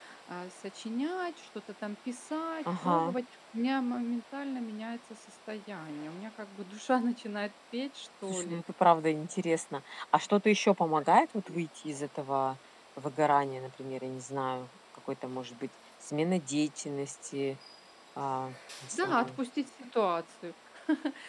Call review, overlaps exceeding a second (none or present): none